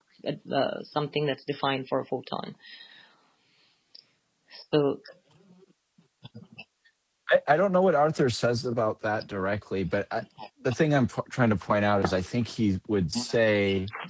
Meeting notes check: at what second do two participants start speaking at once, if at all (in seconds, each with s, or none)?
none